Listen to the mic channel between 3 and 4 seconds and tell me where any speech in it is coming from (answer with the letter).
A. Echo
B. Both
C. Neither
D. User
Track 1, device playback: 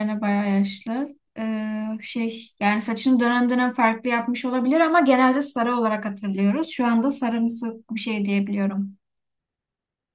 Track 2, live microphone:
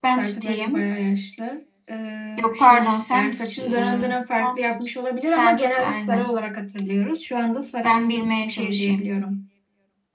B